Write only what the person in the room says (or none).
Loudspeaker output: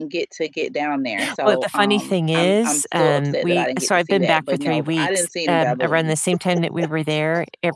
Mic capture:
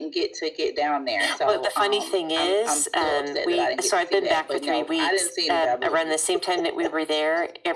none